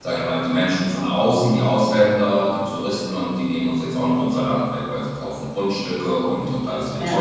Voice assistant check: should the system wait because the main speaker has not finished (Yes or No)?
Yes